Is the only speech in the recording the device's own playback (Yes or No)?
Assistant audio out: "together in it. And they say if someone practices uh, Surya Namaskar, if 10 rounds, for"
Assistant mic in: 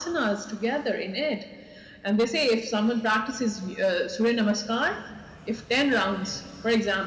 Yes